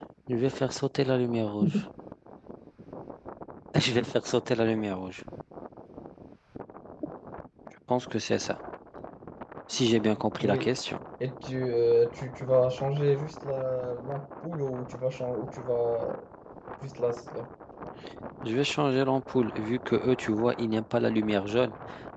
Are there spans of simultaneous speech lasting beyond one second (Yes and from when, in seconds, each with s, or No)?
No